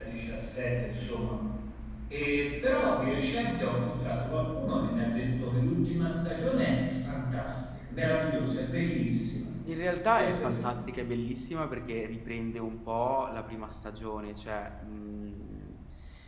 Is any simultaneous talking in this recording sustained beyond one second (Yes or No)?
No